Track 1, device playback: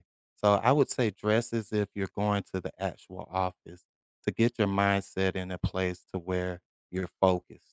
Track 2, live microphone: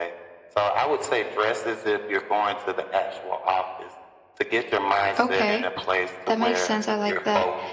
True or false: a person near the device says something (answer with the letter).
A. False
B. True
B